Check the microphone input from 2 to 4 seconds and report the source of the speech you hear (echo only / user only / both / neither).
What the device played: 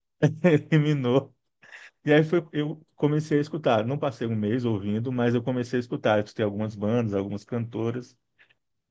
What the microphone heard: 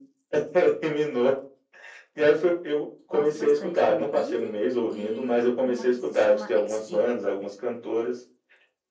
both